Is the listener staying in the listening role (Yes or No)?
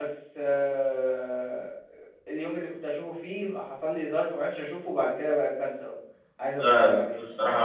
No